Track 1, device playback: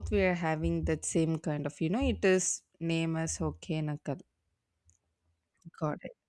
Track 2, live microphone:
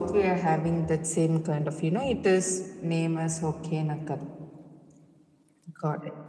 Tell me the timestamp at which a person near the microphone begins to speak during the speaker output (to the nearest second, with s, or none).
none